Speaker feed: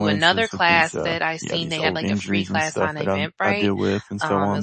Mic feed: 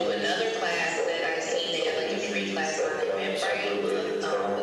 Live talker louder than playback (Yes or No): No